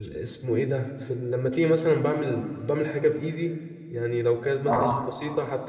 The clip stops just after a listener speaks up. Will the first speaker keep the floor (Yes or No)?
Yes